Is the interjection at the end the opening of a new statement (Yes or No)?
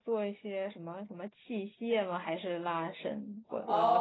Yes